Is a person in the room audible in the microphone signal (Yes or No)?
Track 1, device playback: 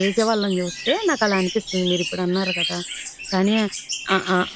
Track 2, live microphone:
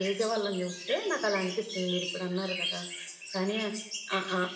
No